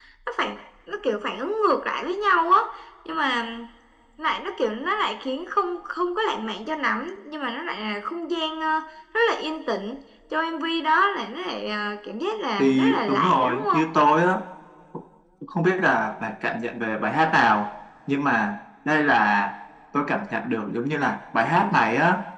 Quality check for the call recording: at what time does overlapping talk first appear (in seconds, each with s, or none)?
12.6 s